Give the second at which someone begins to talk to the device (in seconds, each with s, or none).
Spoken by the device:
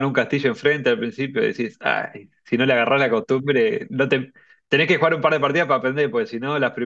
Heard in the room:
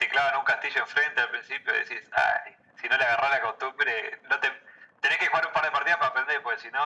none